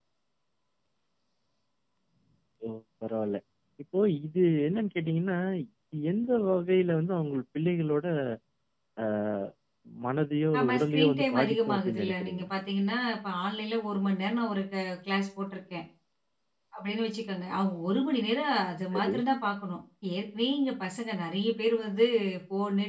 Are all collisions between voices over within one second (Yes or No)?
No